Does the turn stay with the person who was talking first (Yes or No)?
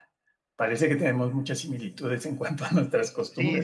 No